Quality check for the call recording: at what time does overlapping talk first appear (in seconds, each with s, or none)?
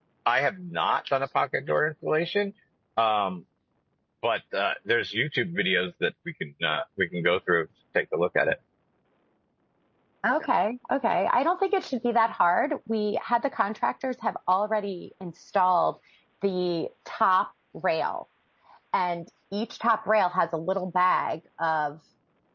none